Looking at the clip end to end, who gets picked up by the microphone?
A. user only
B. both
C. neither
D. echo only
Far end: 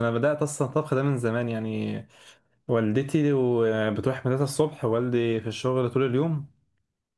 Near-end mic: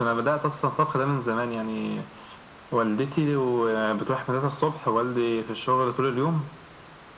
D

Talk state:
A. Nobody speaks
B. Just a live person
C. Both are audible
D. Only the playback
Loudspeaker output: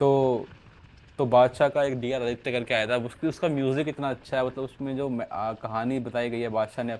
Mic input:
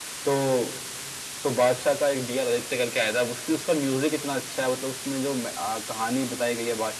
D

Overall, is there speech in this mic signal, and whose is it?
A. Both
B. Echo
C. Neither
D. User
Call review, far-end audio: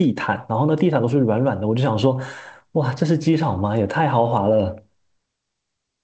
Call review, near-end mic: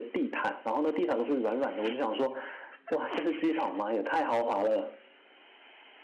B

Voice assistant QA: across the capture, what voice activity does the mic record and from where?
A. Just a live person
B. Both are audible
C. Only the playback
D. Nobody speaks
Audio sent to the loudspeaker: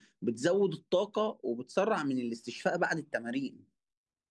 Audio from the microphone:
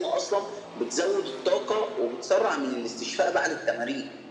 C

